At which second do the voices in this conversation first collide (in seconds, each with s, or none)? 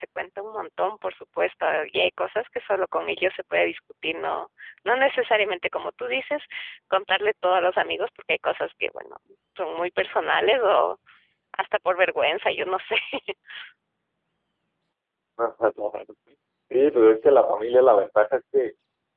none